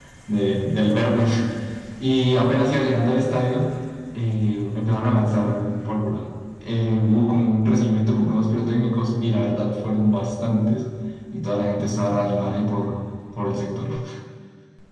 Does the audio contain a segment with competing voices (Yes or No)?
No